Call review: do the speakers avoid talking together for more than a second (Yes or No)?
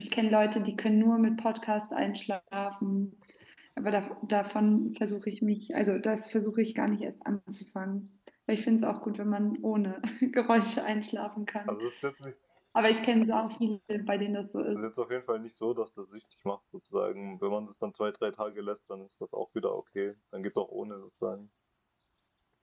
Yes